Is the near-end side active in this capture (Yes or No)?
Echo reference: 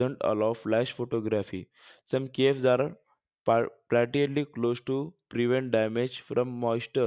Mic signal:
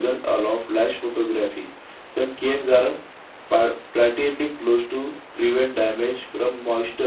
No